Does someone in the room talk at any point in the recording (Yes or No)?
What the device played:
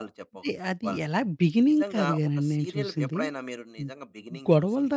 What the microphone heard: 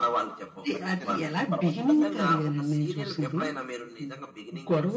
Yes